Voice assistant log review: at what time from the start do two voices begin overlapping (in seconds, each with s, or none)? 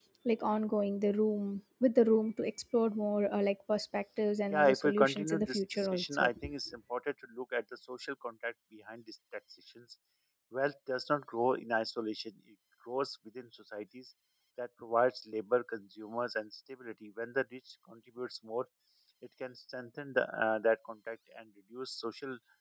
4.5 s